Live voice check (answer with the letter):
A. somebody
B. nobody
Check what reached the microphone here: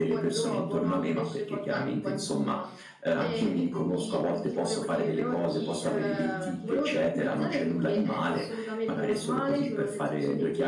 B